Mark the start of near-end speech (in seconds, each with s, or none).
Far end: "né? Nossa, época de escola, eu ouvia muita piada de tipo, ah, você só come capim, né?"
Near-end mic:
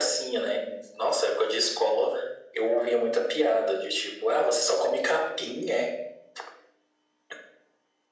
none